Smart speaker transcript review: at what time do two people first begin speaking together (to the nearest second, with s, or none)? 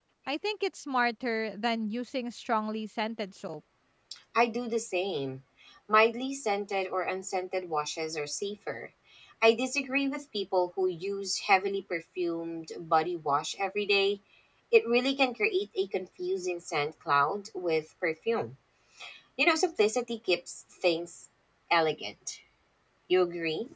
none